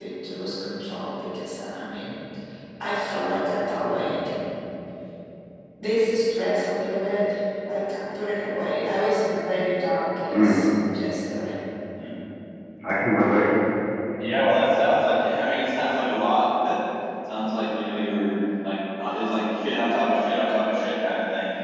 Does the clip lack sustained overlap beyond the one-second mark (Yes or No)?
Yes